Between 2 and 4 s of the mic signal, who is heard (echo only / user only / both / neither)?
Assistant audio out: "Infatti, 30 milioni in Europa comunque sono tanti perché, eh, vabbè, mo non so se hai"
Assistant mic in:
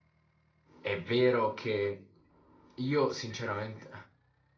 user only